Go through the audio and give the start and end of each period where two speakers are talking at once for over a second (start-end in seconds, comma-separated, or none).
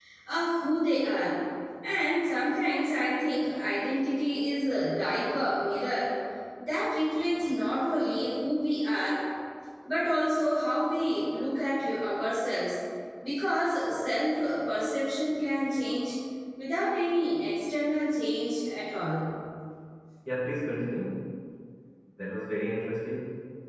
none